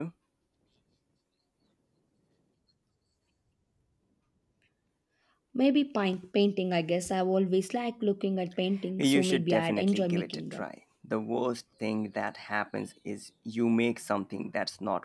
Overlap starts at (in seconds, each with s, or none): 9.0 s